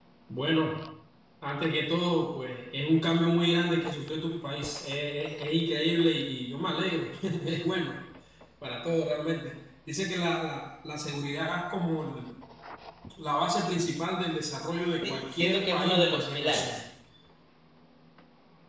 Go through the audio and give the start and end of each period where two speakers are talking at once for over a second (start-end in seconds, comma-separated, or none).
15.0-16.8